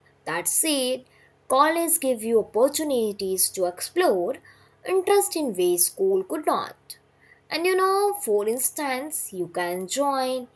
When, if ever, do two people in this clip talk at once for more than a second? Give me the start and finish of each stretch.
none

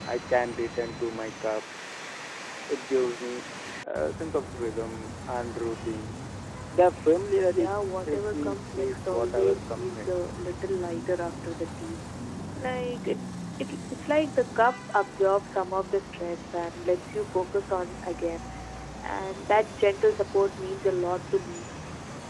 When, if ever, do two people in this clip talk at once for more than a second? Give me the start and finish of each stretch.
7.5-10.1

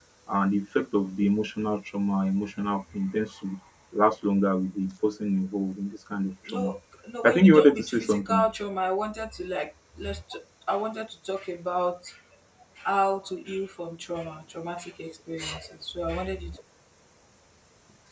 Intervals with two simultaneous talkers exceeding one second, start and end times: 7.2-8.4

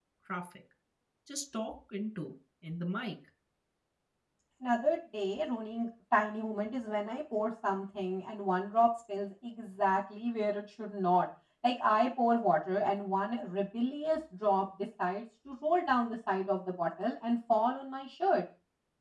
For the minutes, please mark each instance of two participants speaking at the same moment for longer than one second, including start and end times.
none

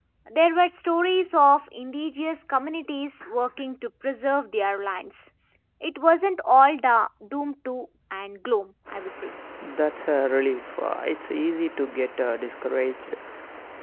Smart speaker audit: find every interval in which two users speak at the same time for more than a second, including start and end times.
none

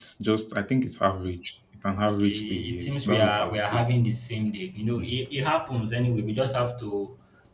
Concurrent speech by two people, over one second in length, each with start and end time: 2.1-3.8

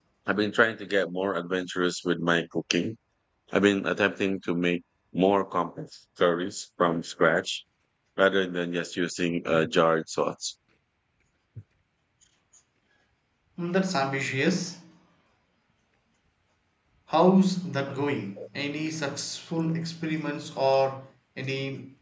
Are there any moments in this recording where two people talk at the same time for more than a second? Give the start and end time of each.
none

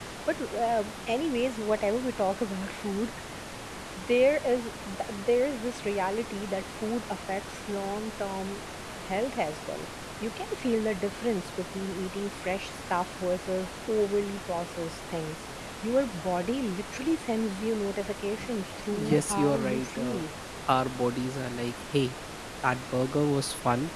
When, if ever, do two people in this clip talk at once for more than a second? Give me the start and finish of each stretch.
19.0-20.2

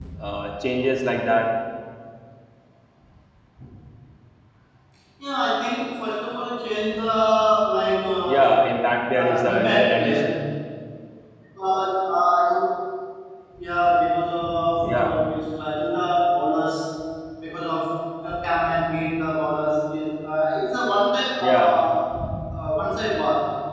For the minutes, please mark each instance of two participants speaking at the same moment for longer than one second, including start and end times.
9.1-10.3

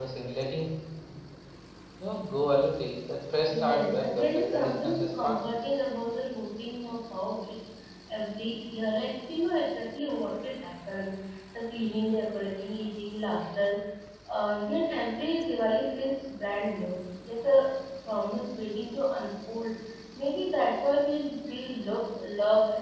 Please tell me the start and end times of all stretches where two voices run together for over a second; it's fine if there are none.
3.5-5.6

